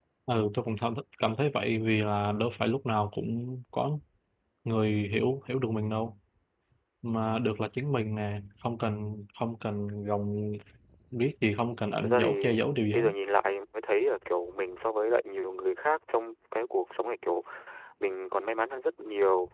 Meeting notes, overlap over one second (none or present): none